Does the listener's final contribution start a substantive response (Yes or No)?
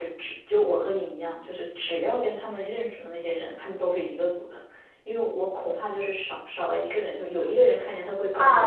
Yes